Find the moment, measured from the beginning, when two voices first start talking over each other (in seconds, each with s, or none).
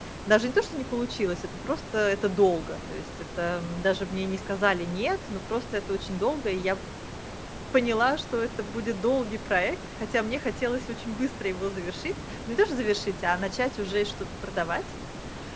none